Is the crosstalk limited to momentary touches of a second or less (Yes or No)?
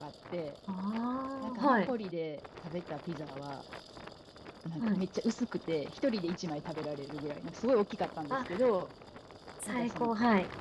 Yes